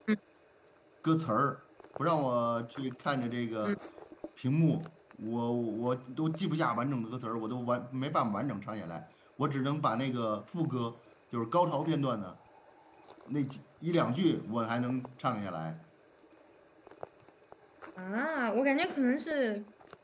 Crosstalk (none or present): none